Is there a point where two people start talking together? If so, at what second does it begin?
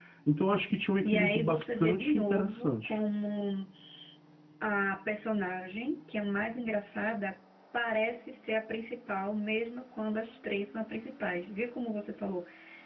1.0 s

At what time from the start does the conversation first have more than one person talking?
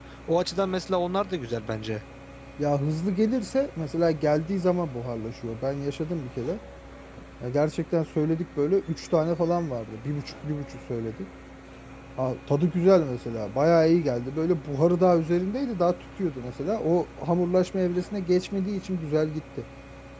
none

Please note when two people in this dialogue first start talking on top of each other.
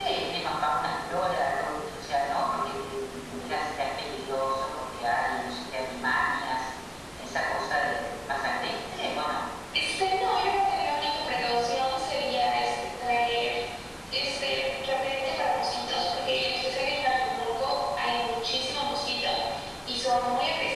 none

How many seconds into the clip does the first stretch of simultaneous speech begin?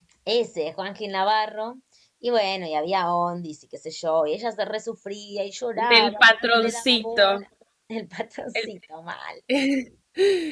5.8 s

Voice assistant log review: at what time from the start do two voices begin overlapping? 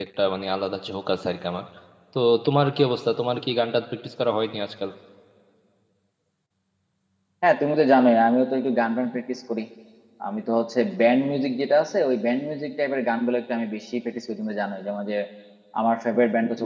none

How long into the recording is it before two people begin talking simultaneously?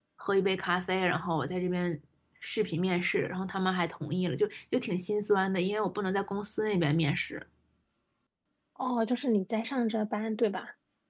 none

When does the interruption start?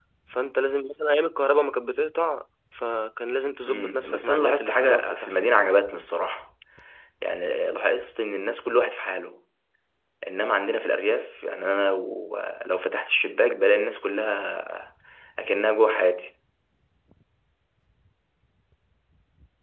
3.7 s

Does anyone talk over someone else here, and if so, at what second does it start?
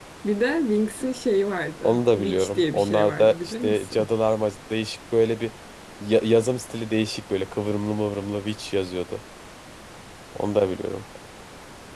1.8 s

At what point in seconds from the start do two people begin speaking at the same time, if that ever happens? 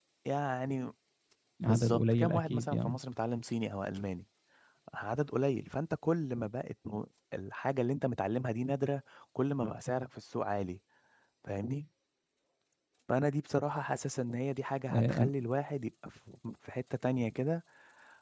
1.6 s

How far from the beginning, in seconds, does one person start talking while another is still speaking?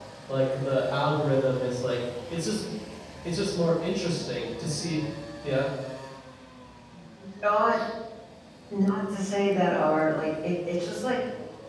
none

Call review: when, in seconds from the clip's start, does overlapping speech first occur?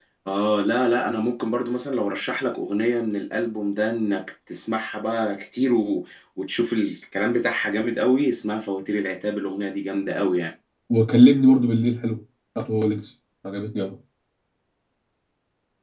none

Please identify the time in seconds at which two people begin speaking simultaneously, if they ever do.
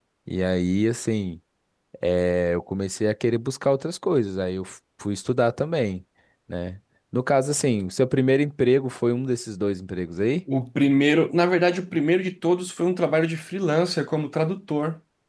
none

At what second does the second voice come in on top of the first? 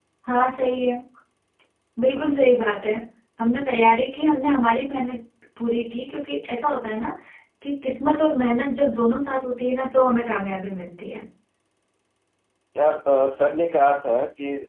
none

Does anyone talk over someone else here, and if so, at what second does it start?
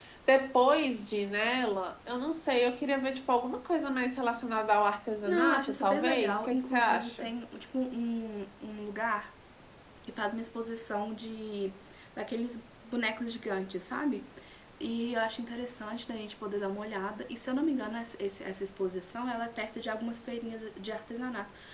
5.2 s

